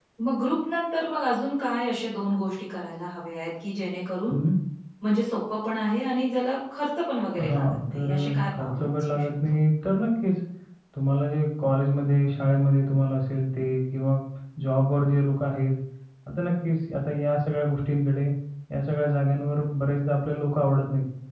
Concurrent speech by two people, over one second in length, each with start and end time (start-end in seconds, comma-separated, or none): 7.5-9.3